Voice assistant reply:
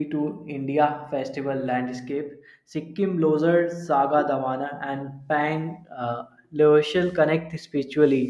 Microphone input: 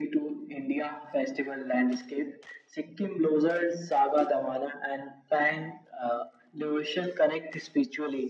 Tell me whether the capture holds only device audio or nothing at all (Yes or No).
Yes